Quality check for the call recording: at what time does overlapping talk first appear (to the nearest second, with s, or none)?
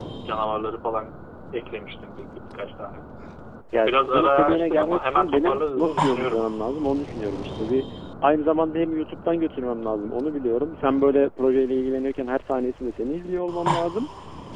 4 s